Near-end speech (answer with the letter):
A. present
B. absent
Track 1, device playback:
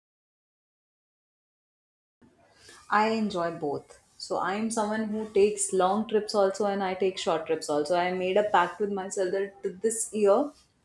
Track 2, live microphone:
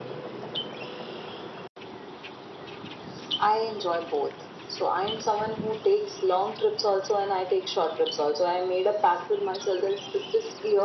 B